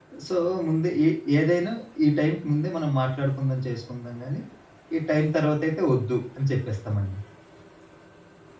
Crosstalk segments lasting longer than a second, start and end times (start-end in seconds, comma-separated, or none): none